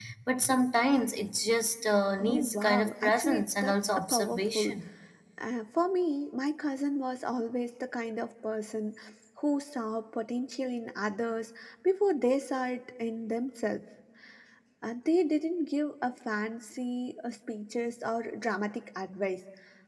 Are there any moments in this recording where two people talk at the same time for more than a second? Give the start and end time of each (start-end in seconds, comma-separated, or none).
2.2-4.8